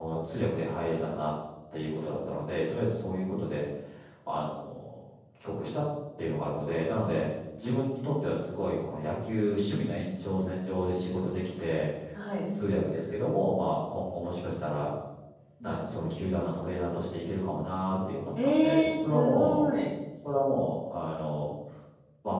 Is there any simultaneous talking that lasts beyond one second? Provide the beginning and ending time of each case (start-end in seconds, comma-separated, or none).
18.4-19.7